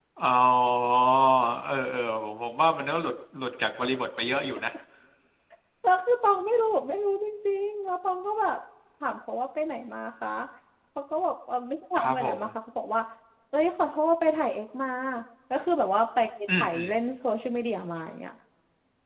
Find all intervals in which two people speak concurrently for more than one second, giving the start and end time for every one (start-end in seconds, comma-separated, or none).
none